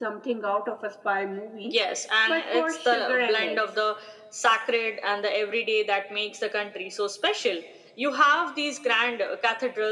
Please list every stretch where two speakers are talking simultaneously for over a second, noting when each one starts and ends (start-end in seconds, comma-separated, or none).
2.3-3.6